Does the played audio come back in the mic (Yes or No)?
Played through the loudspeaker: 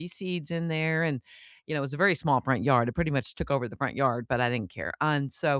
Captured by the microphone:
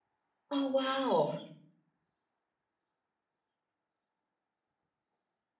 No